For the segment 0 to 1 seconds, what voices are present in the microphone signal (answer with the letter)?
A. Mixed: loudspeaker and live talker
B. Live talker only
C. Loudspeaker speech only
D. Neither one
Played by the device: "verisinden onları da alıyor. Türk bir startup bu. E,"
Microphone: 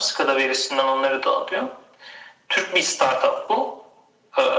C